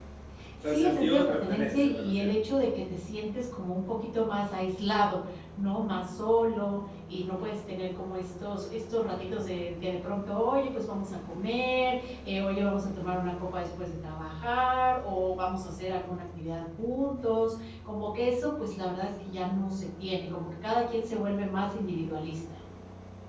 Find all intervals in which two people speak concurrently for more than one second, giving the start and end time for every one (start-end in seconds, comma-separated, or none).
0.7-2.3